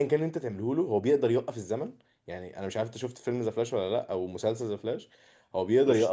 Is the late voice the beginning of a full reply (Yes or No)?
No